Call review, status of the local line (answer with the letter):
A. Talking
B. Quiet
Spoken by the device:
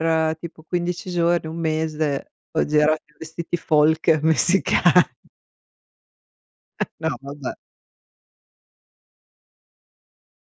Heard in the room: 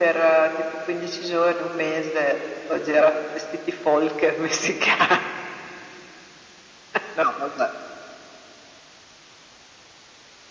B